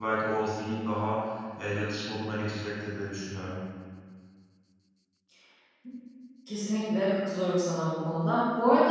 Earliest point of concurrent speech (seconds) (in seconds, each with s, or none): none